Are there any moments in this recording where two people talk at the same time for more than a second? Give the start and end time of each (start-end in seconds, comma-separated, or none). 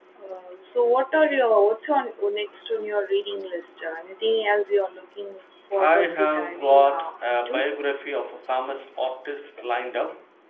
5.8-7.6